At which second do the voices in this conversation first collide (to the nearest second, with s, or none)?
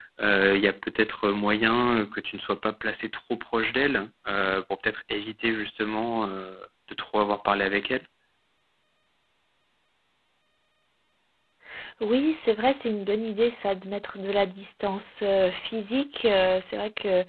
none